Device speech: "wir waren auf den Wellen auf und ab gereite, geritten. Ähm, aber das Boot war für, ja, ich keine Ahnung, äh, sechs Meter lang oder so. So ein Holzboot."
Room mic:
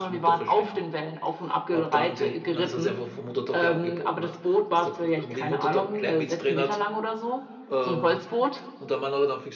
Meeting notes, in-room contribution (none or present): present